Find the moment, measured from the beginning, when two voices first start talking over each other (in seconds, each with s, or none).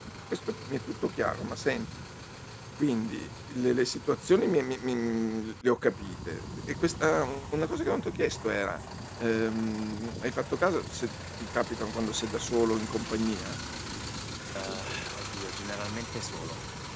none